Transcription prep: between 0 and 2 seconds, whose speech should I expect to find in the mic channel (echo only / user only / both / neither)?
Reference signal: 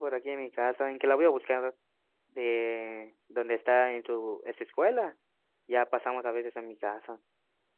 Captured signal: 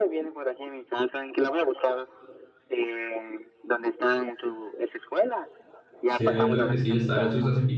echo only